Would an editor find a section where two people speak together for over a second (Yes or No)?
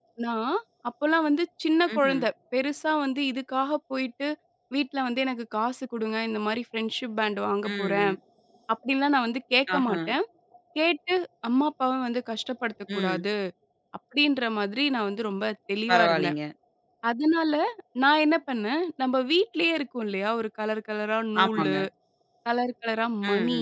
No